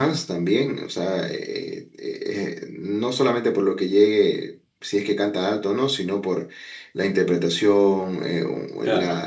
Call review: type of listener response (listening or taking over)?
listening